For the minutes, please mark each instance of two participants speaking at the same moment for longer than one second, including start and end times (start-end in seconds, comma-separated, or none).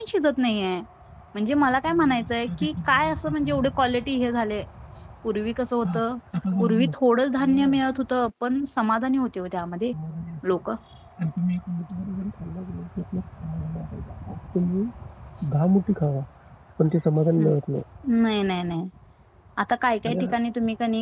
1.9-3.7